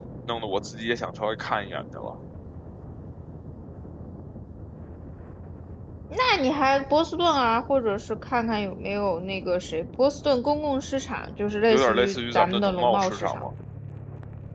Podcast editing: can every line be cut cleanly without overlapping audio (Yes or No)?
No